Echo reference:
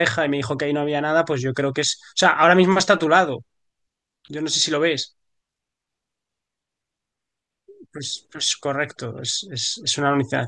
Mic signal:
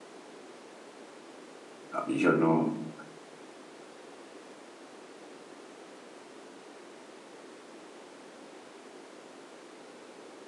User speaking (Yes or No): Yes